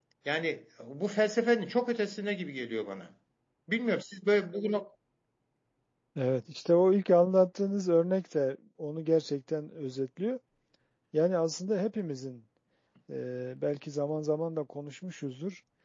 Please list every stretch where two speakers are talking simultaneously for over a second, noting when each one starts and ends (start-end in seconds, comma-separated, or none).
none